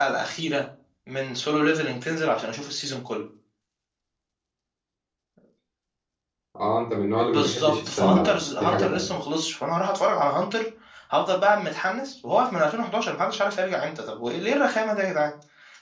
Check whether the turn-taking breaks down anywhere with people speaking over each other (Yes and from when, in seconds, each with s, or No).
Yes, from 7.2 s